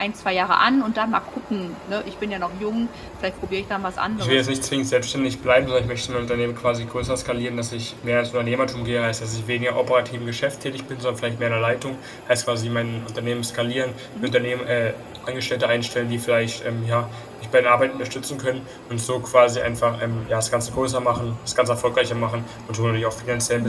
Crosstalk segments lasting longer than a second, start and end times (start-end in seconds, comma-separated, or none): none